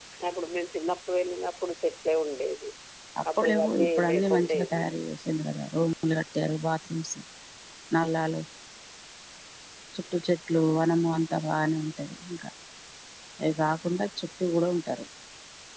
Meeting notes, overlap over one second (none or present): present